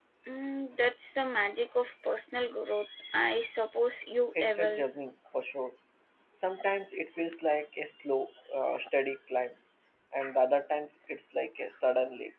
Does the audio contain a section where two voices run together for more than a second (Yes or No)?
No